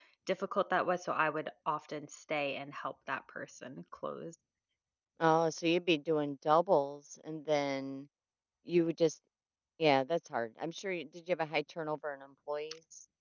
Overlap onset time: none

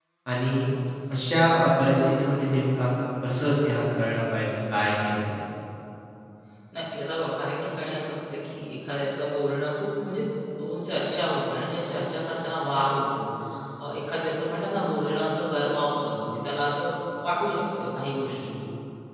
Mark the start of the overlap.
none

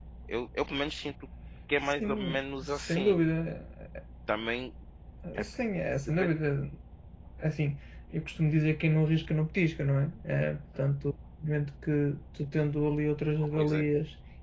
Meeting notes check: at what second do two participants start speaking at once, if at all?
2 s

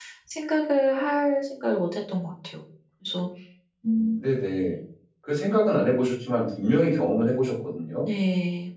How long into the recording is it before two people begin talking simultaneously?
none

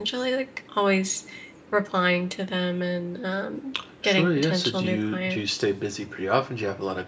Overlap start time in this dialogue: 4 s

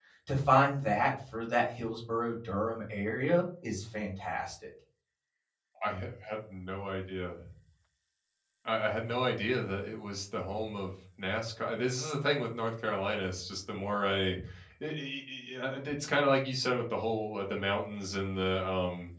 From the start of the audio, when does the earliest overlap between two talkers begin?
none

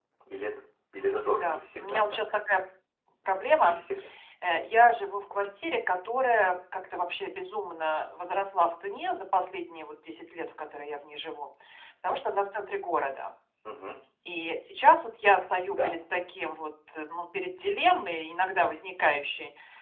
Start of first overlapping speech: 1 s

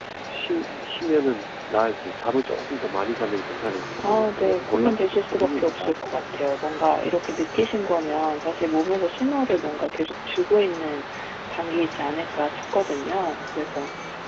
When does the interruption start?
4 s

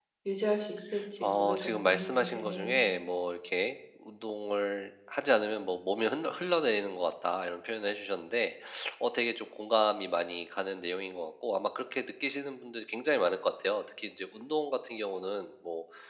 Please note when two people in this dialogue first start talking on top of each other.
1 s

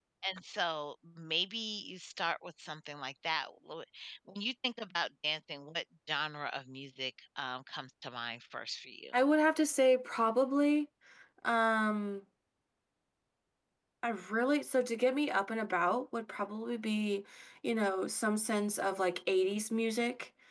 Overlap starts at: none

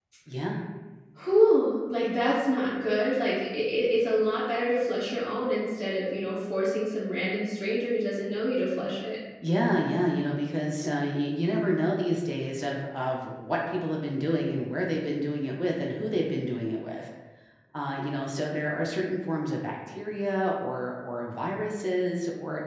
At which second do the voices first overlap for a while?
none

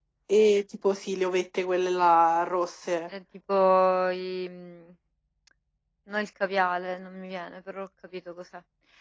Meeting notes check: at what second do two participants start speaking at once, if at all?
none

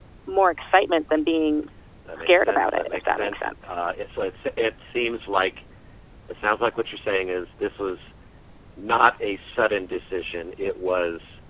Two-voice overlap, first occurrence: 2 s

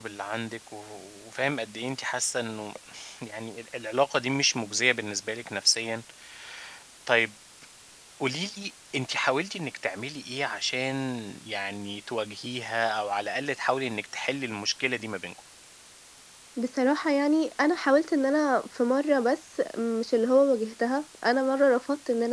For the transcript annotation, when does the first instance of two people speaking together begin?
none

